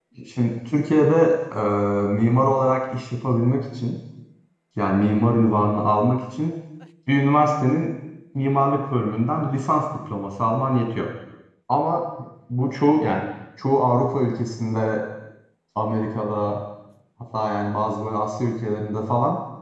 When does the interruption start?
none

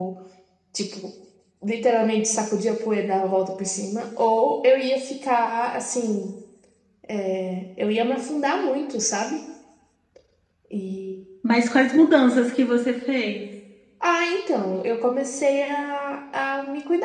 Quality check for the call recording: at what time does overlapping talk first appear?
none

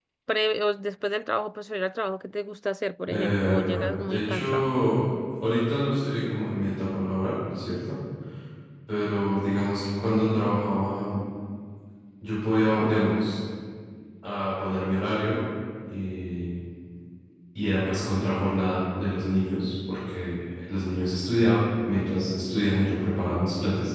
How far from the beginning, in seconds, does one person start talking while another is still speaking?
3.1 s

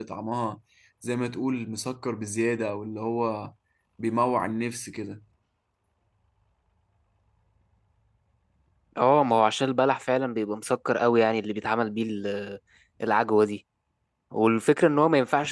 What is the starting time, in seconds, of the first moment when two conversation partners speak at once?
none

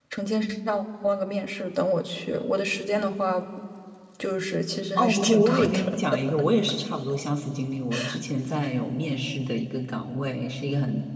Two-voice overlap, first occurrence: 5.0 s

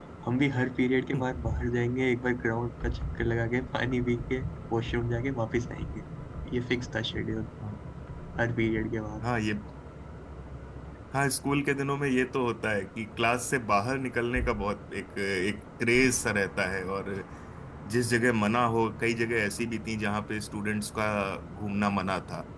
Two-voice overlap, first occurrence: none

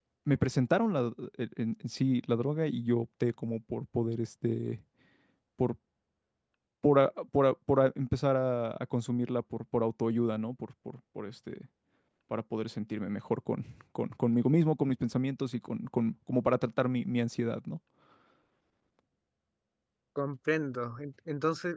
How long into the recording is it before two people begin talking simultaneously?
none

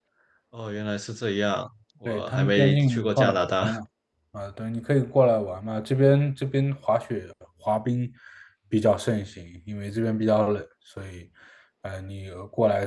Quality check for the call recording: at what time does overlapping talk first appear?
2.0 s

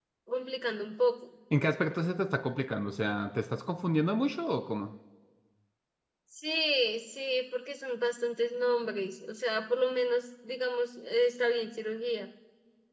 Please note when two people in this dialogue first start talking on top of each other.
none

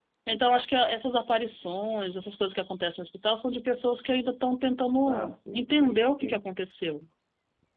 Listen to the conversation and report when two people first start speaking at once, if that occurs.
5.0 s

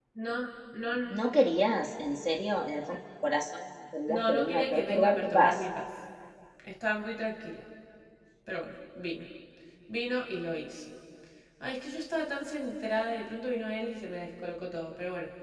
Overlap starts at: 4.1 s

